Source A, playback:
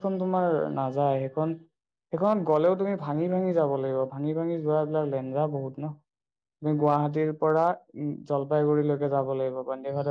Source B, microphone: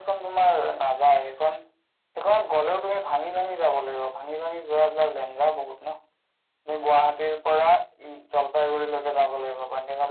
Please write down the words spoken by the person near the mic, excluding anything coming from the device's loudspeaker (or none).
none